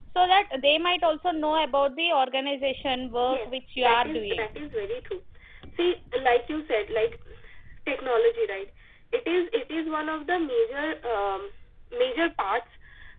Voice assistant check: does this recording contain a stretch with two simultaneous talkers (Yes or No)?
Yes